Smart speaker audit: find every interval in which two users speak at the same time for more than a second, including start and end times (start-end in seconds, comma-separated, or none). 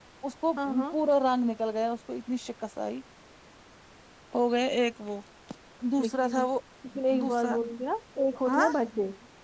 none